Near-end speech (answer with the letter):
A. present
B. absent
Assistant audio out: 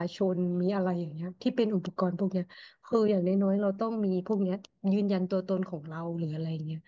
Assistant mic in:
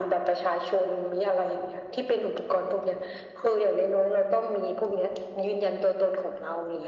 B